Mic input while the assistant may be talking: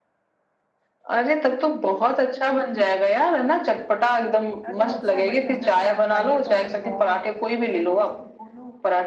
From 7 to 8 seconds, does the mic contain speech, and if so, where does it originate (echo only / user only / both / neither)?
both